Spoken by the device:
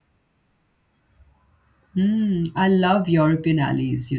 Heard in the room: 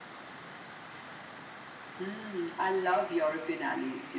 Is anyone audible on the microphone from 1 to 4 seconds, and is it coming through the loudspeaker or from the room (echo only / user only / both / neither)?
echo only